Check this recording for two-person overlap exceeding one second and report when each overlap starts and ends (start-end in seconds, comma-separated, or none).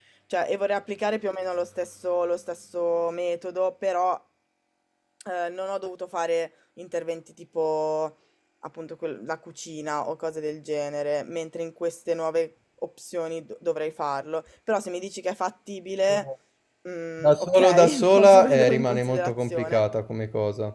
17.2-19.8